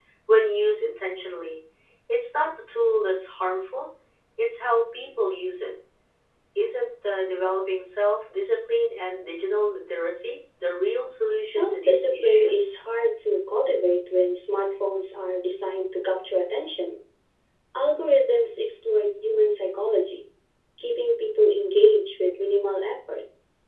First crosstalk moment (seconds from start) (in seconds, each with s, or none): 11.4 s